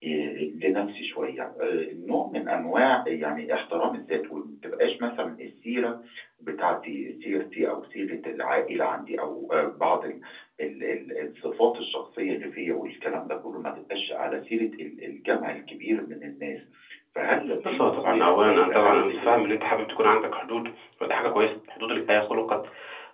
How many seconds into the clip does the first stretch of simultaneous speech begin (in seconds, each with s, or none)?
17.6 s